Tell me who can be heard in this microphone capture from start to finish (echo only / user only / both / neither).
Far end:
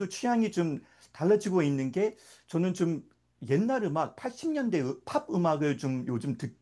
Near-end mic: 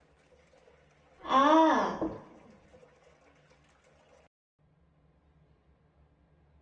user only